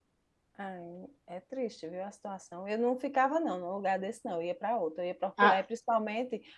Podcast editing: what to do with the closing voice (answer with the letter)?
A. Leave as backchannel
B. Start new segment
A